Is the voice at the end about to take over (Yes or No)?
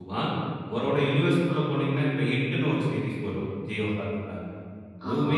No